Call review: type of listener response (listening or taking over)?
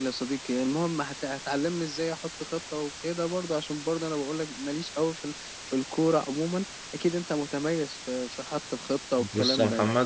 taking over